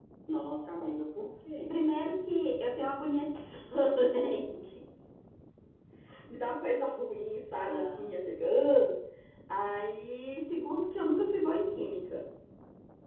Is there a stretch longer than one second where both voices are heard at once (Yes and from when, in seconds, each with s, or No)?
No